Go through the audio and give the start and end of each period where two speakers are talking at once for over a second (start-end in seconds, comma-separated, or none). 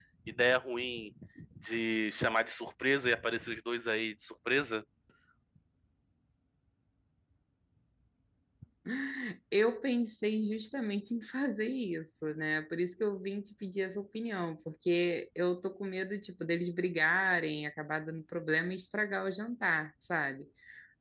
none